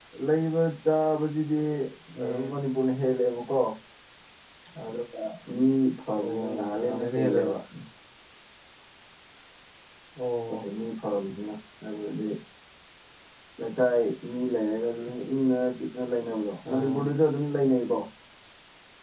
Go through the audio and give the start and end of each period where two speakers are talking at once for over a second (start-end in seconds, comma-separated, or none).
6.2-7.5